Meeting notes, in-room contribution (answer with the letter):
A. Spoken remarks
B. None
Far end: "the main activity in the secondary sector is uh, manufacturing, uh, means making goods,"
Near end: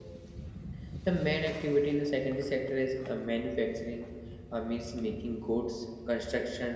B